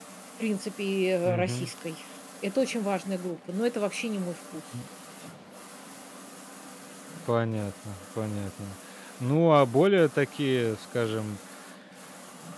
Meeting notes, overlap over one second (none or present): none